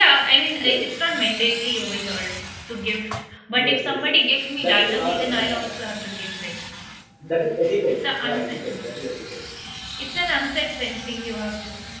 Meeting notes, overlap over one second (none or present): present